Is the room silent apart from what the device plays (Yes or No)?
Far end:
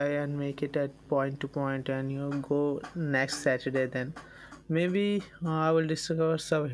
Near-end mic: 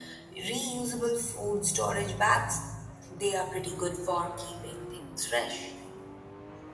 No